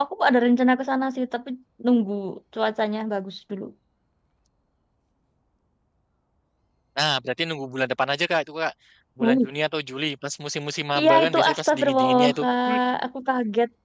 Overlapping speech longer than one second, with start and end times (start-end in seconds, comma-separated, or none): 11.0-12.4